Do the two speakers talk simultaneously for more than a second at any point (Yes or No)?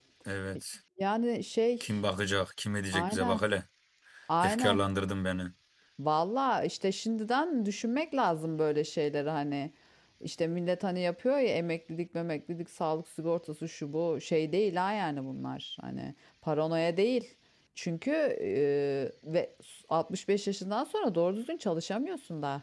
No